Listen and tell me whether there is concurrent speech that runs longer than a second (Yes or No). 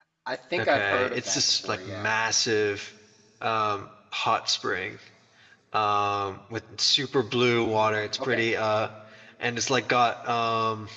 Yes